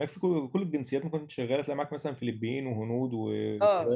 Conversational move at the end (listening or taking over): taking over